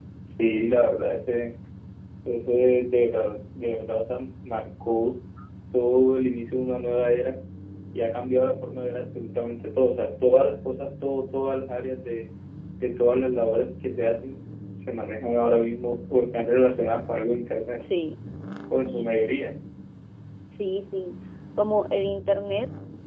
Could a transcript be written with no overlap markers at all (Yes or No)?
Yes